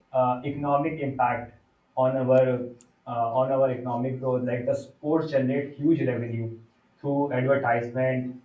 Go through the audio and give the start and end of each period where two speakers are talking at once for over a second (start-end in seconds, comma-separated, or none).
none